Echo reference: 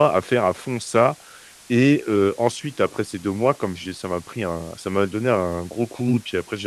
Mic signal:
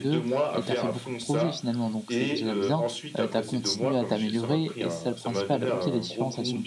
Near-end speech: present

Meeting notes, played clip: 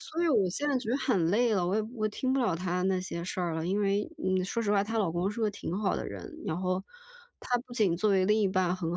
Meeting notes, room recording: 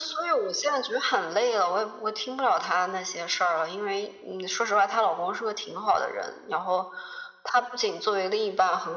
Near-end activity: none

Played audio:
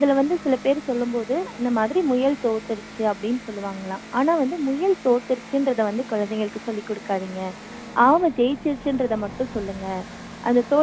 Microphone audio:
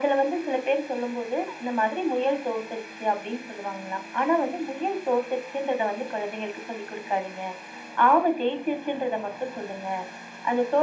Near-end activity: none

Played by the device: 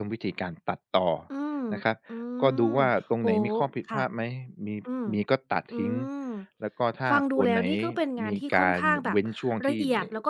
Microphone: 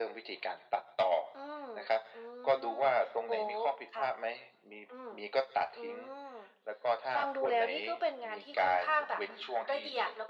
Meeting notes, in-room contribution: none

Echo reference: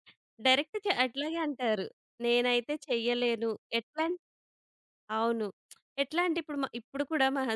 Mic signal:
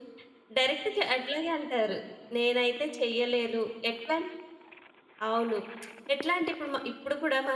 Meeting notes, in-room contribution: none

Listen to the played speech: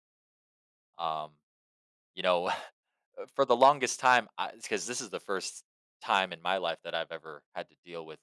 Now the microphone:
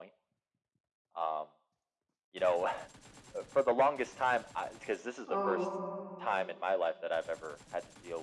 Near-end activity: present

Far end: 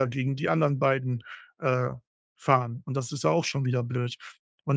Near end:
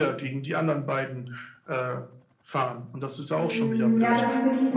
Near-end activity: present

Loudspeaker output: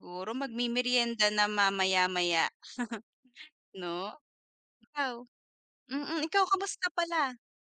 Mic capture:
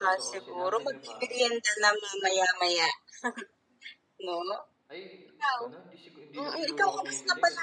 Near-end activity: present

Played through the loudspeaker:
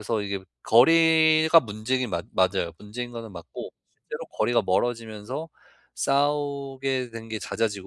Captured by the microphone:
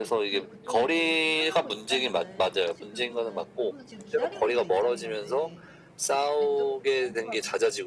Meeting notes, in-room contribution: present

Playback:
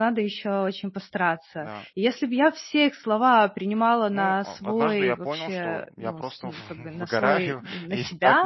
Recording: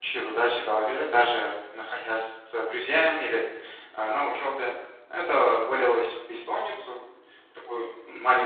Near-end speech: present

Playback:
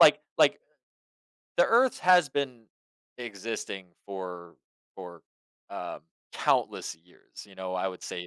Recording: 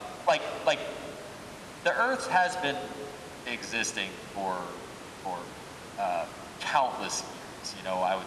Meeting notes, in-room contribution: none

